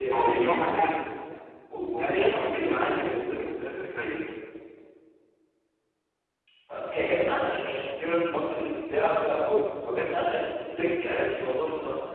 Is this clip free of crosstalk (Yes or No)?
No